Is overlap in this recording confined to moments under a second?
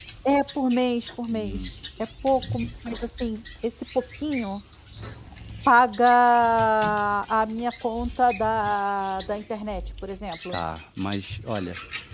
Yes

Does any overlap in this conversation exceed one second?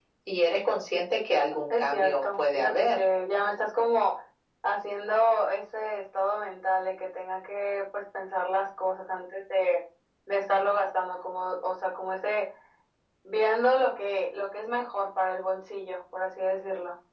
Yes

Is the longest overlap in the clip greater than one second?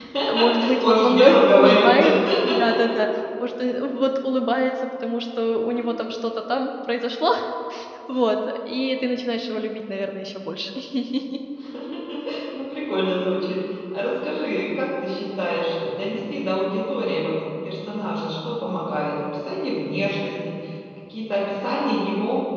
Yes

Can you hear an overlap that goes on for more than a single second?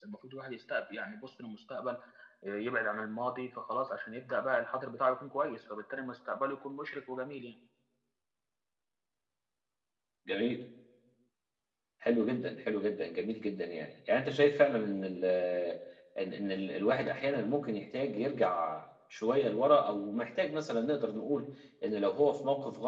No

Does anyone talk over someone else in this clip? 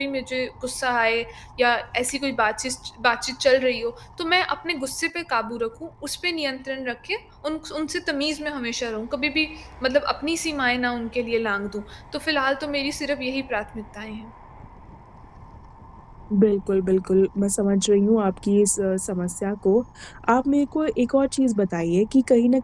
No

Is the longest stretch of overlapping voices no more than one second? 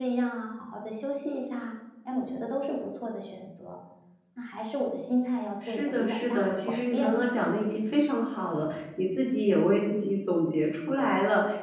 No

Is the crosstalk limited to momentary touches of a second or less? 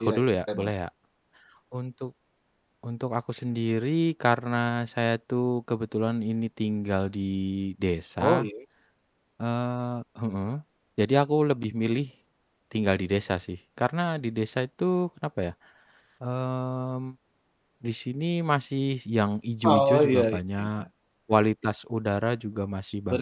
No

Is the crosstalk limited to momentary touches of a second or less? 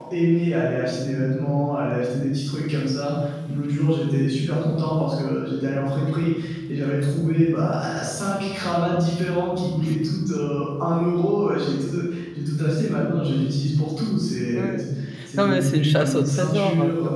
No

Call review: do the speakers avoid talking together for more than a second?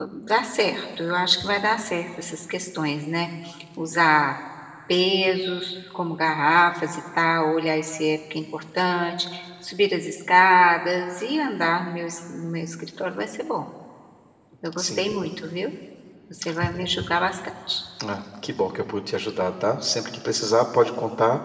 Yes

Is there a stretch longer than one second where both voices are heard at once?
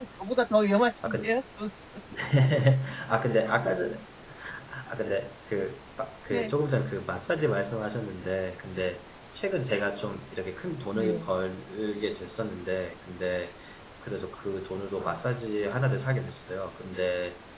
No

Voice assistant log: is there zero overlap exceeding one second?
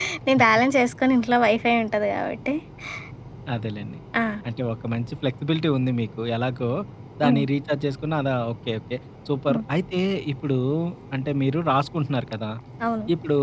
Yes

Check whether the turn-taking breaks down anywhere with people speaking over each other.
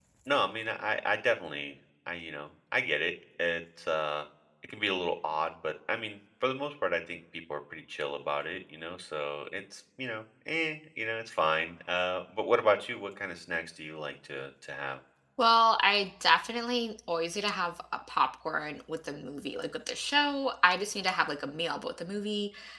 No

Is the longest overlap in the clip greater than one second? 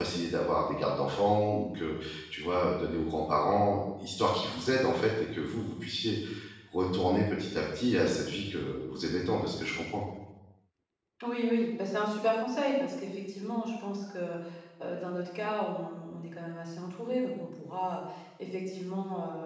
No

